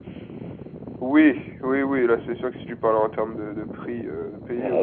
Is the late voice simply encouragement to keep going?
No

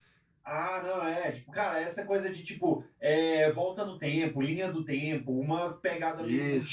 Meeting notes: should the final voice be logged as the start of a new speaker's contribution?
No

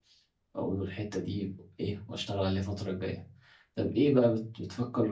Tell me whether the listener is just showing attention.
Yes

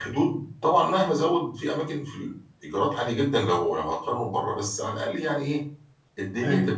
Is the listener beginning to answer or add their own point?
No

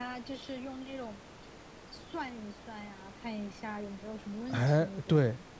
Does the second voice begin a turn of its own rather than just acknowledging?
Yes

